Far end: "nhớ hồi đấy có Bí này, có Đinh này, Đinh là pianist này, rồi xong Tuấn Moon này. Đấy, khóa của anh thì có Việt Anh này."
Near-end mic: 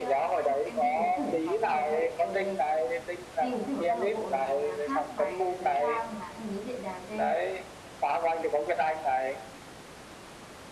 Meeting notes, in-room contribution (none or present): present